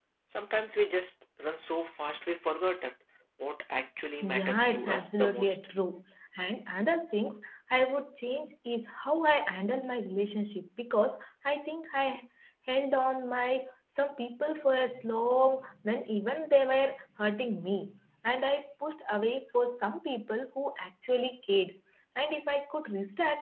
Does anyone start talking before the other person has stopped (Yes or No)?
Yes